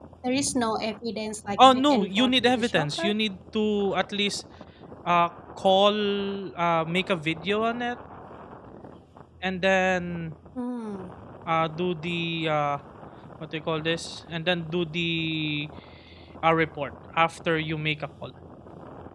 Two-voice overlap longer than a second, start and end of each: 1.6-3.1

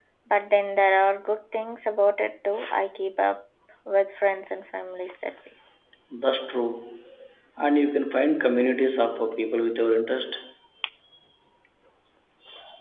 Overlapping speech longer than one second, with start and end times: none

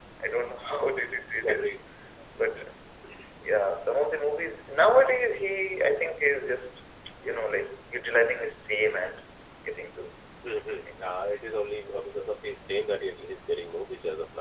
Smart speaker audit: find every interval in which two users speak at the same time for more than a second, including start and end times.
none

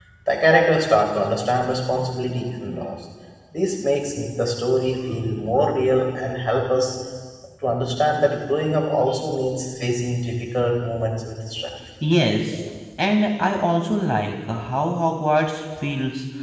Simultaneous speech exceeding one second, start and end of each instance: none

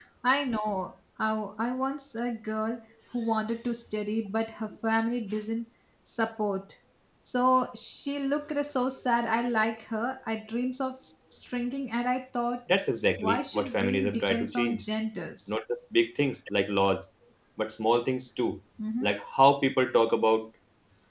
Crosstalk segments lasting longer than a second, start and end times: 13.2-14.8

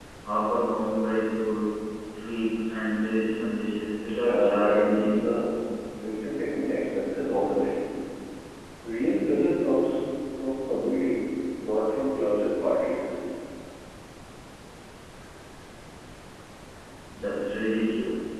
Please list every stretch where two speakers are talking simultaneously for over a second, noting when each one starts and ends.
4.2-5.4

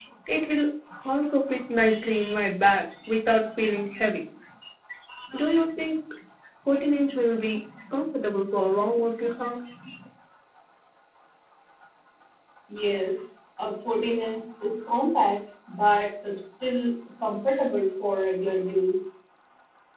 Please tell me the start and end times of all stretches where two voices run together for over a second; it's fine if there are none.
none

